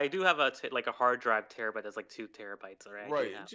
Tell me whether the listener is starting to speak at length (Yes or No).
Yes